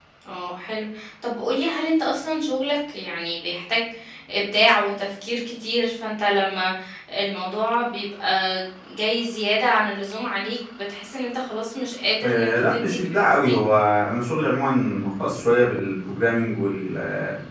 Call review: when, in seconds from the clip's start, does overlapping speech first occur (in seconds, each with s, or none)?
12.2 s